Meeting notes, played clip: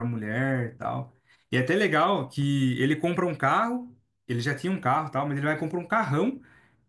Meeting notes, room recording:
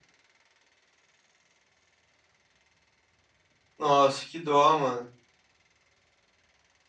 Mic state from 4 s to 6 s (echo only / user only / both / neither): user only